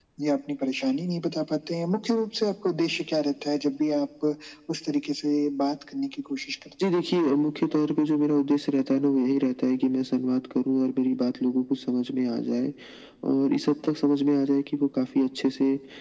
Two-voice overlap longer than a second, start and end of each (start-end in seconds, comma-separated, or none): none